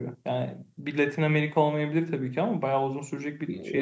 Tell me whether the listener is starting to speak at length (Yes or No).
Yes